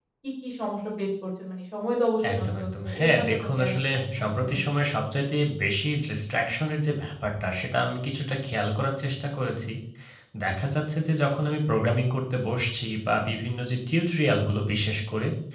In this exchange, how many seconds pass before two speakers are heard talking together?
2 s

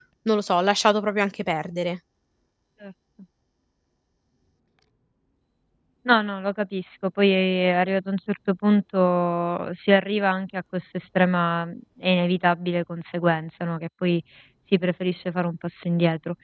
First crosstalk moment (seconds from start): none

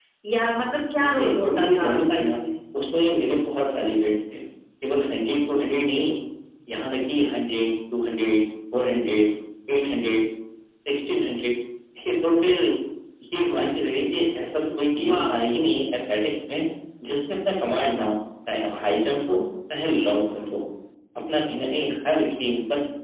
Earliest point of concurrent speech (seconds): 1 s

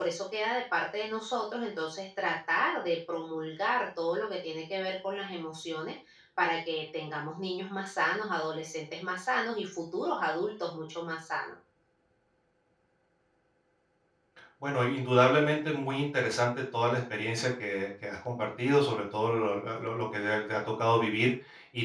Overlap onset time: none

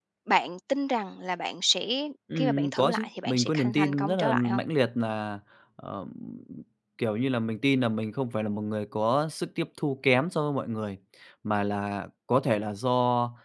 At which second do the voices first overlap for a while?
2 s

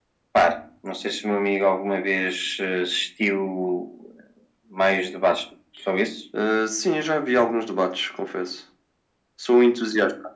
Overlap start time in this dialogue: none

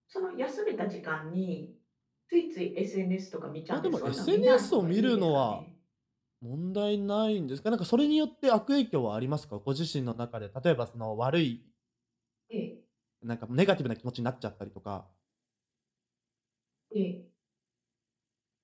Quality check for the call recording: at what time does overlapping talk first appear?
4 s

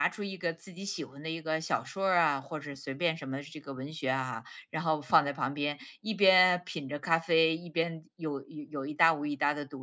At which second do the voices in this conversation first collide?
none

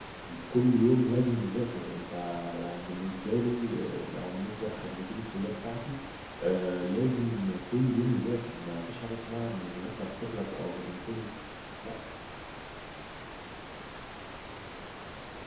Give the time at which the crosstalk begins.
none

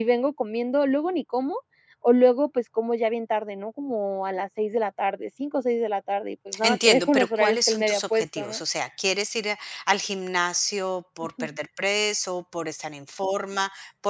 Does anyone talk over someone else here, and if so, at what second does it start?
7 s

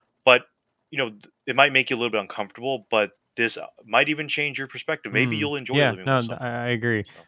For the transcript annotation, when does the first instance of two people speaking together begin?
5 s

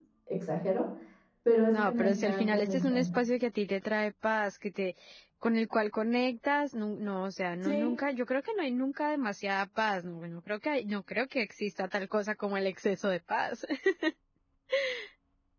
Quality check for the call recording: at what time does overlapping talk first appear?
2 s

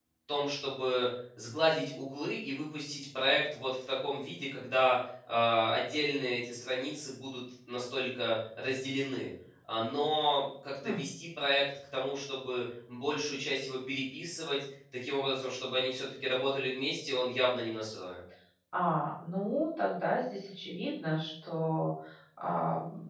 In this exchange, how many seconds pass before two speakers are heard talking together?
none

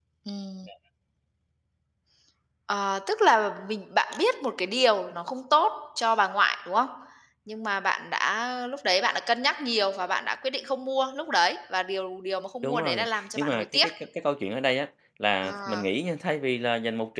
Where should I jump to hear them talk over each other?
13 s

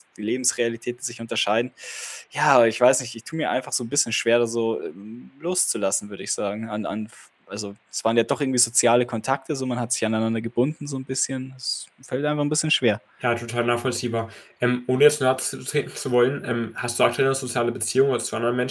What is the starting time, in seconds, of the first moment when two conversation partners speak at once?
none

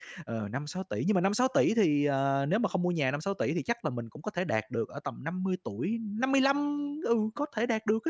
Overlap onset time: none

